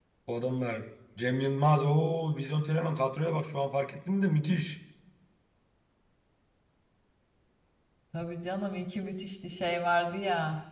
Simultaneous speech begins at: none

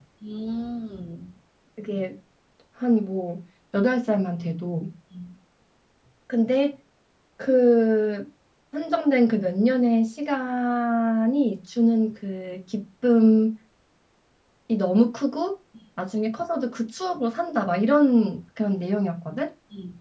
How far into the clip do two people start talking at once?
none

